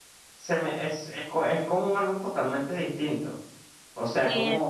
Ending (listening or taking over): listening